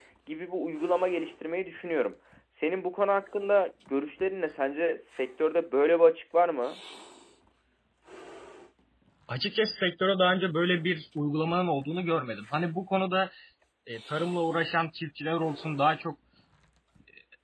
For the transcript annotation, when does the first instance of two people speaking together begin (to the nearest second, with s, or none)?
none